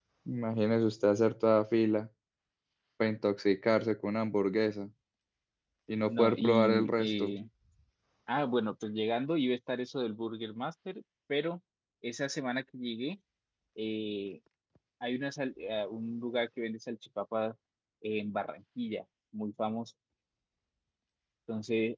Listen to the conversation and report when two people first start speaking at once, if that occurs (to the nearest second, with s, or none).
6 s